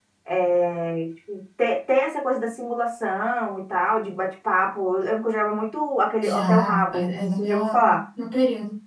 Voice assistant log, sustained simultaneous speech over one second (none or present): present